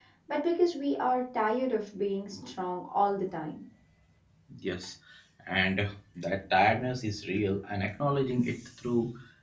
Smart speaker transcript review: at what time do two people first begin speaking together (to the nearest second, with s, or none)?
none